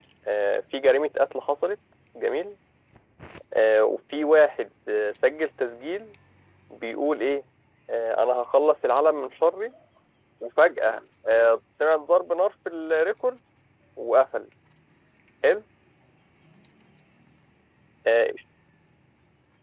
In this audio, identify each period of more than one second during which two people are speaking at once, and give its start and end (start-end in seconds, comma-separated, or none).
none